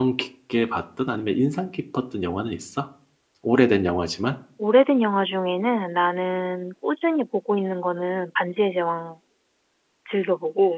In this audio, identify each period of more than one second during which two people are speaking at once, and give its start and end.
none

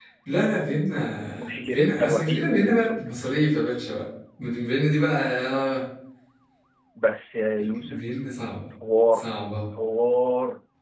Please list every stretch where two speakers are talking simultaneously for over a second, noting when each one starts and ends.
1.4-3.1

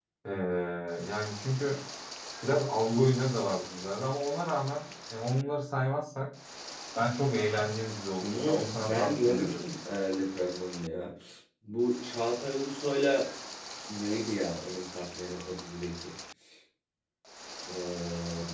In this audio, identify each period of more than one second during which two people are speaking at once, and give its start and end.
8.2-9.6

